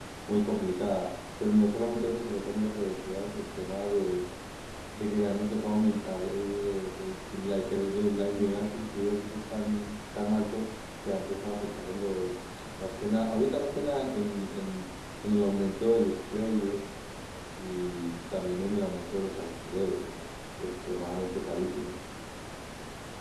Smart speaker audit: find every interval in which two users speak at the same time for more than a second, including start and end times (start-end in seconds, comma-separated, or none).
none